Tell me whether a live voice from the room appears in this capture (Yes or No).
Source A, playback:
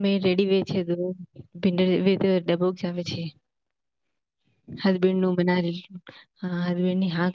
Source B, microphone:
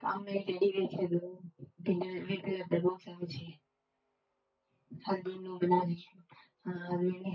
No